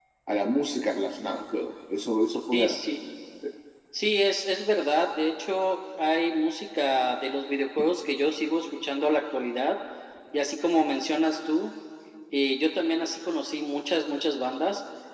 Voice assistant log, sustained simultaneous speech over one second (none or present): none